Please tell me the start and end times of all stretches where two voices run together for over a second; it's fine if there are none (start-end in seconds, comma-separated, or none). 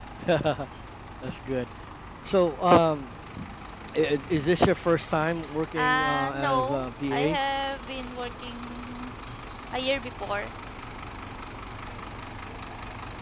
5.8-7.4